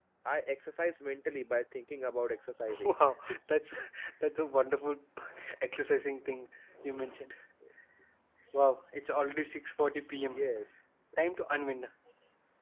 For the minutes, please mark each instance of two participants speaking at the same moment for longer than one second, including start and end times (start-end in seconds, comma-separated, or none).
none